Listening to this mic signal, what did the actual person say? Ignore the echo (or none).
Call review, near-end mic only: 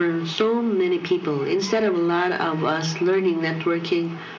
none